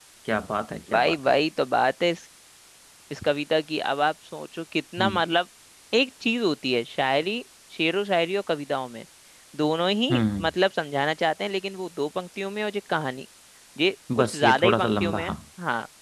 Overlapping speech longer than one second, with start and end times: 14.2-15.4

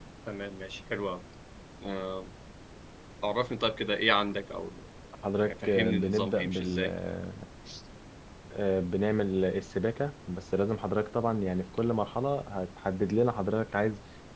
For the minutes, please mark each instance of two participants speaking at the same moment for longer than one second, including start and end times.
5.4-6.9

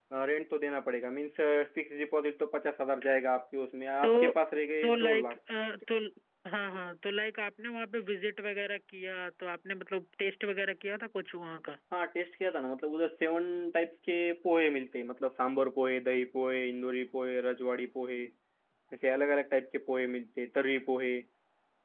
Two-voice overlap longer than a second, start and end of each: none

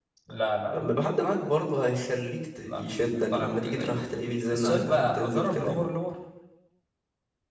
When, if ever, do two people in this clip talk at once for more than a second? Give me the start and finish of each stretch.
2.7-4.1, 4.5-5.8

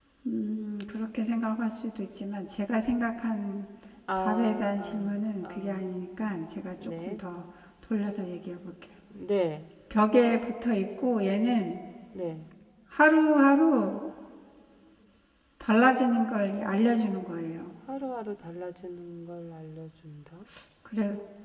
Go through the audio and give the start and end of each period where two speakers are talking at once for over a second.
4.2-5.8

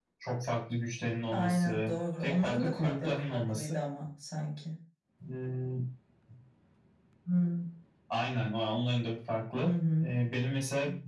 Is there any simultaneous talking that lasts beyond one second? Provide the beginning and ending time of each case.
1.3-3.8

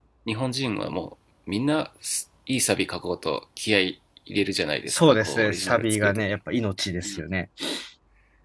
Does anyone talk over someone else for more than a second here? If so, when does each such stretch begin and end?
4.9-6.4

